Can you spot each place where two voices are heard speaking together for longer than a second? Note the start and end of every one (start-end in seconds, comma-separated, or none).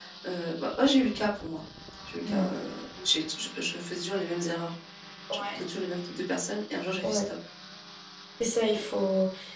none